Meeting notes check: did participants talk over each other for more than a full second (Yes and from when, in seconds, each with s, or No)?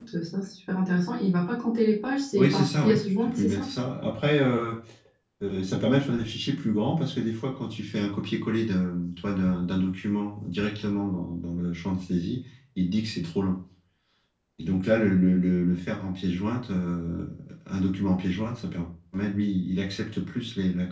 Yes, from 2.4 s